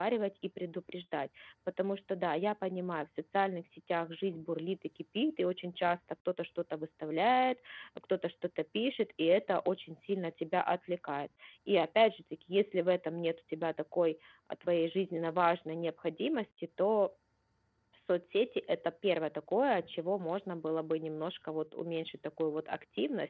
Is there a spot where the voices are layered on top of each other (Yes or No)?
No